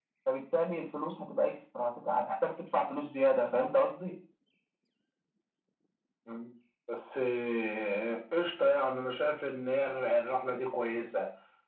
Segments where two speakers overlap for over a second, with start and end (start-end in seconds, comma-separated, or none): none